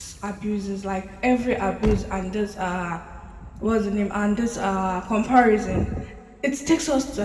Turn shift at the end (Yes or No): No